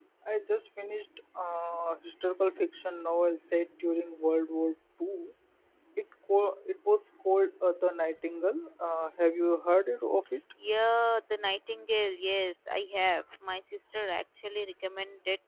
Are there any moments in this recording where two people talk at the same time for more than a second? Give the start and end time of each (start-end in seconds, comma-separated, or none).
none